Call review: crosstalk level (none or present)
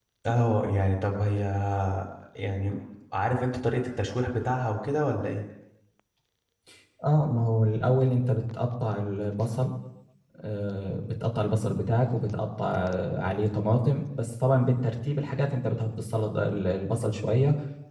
none